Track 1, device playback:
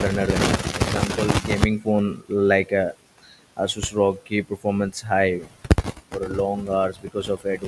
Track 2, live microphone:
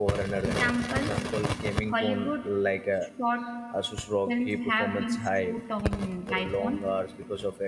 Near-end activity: present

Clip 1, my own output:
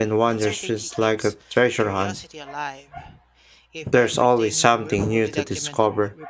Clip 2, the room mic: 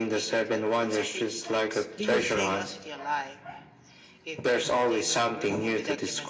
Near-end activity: present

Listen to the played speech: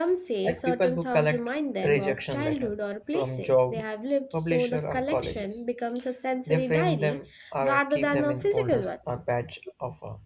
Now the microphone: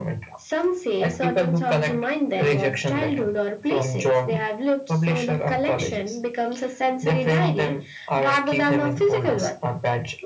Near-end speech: none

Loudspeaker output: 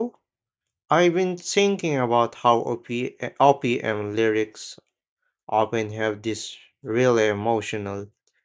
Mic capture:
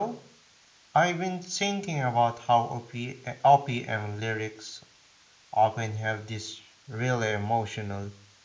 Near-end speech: none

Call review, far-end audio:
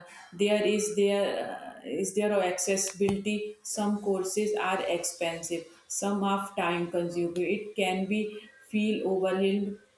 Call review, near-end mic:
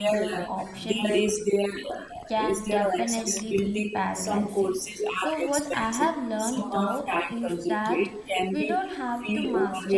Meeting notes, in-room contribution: present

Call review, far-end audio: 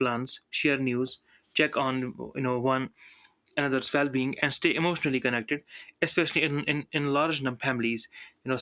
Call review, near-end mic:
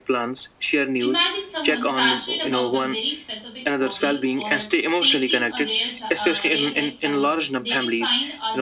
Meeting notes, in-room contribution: present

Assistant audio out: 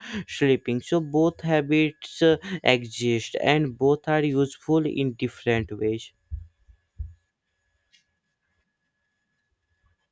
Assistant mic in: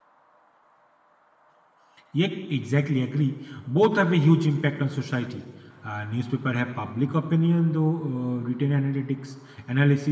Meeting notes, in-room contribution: present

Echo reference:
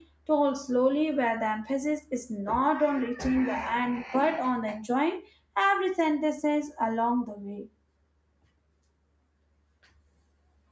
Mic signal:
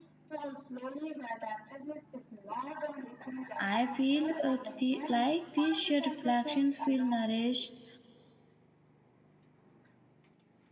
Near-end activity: present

